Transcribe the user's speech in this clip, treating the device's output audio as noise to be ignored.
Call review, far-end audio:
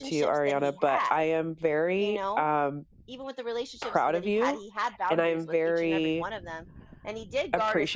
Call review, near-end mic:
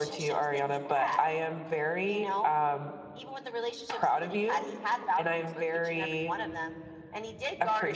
none

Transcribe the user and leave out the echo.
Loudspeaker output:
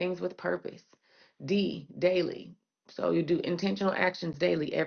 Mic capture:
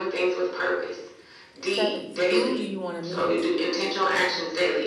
Seventh, who do you want to meet?

